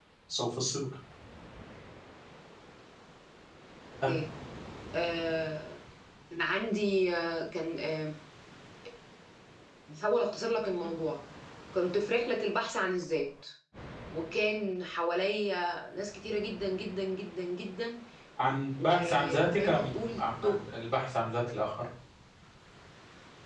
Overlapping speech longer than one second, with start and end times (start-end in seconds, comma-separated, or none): 18.8-20.6